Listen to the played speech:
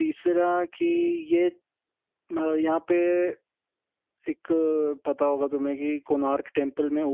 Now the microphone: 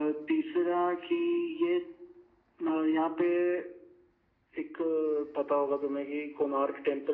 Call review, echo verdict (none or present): present